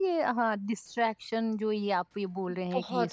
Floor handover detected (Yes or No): No